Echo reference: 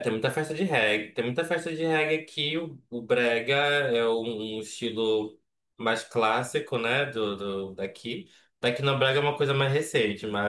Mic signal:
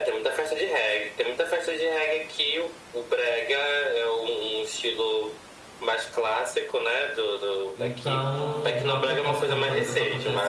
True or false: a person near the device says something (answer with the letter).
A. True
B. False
A